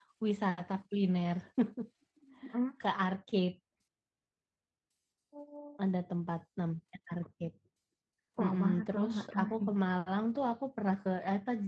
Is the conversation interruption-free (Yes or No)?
No